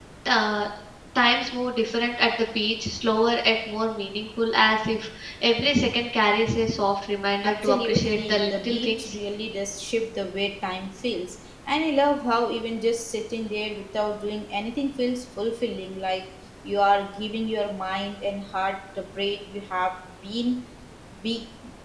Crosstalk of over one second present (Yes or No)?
Yes